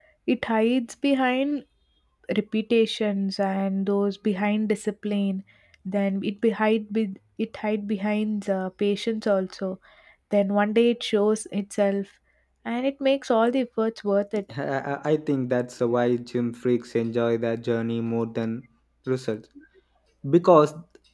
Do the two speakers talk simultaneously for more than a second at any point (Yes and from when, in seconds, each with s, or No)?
No